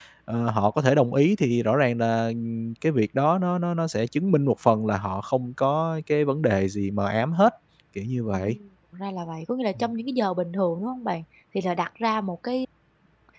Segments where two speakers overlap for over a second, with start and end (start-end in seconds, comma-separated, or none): none